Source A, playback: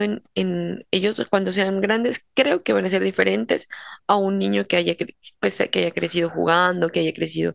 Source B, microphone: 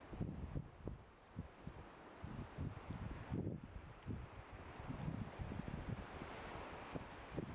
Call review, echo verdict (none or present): none